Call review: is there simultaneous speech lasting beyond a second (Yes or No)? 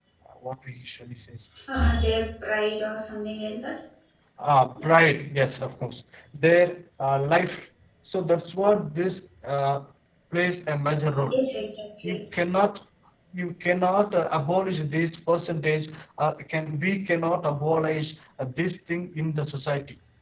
No